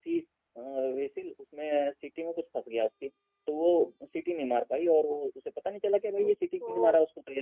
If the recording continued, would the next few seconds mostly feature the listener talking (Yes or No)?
No